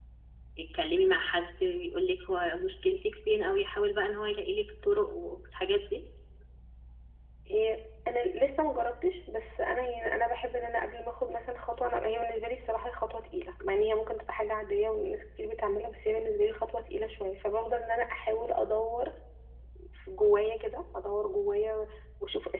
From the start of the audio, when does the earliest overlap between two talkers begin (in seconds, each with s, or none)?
none